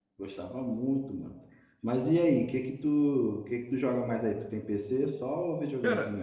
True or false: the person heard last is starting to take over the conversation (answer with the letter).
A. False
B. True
B